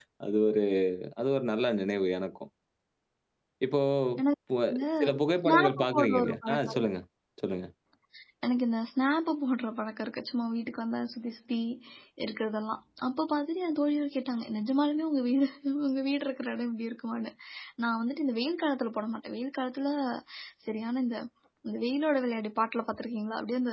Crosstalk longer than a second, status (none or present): present